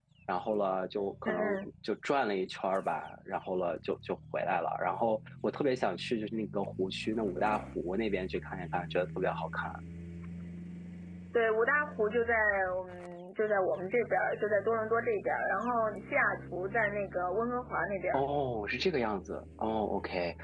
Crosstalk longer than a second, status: none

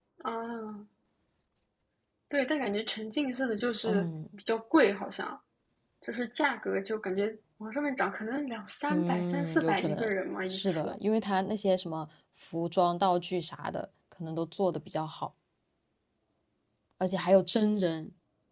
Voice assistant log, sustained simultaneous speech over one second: present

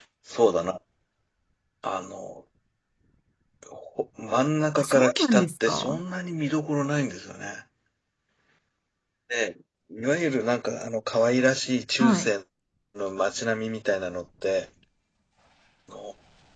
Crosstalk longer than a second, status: present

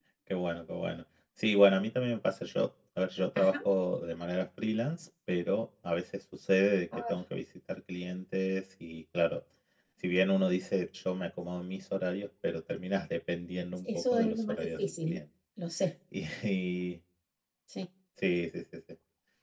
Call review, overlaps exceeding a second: present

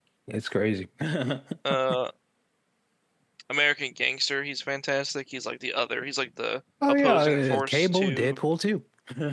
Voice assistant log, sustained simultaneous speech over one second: present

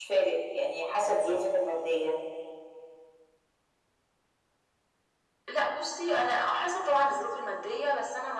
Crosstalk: none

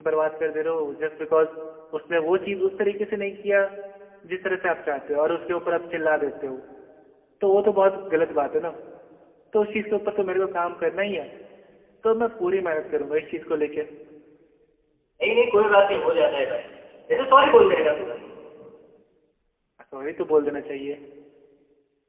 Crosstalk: none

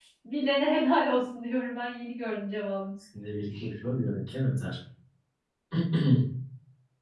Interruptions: none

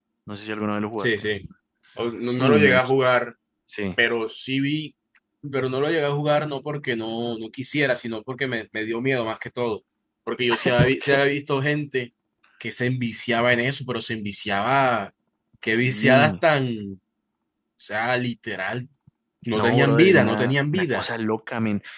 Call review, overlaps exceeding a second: present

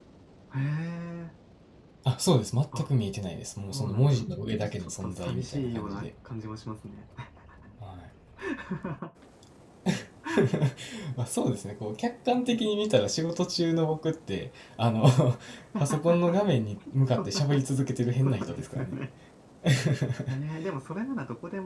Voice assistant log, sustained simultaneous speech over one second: present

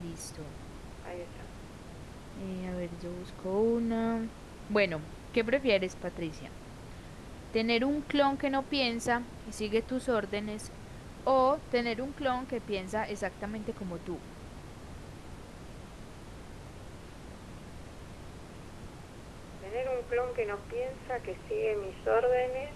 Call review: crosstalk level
none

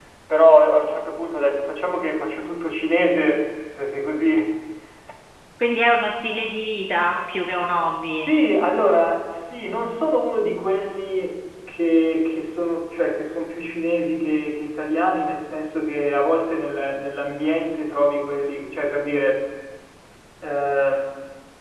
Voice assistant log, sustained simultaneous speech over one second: none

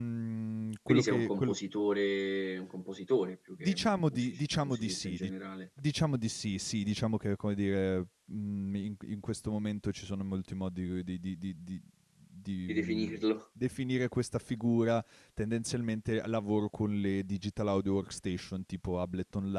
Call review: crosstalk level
present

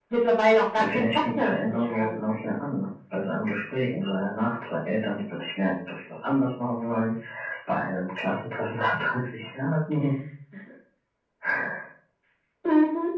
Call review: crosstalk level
present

